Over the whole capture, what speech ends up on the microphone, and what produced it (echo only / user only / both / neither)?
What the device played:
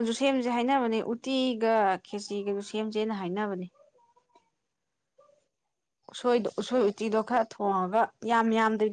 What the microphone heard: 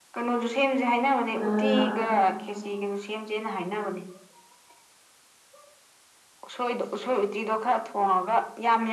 both